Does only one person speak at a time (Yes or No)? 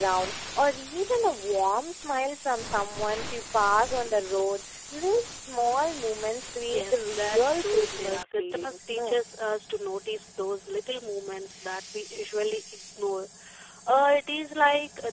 No